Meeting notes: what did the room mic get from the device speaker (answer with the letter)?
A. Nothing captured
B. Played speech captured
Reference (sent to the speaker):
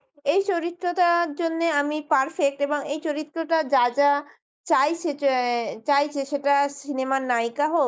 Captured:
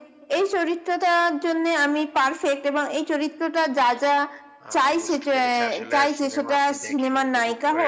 B